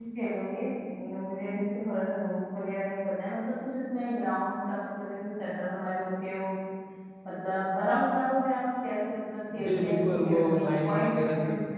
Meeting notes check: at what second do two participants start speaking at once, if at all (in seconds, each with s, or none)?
9.5 s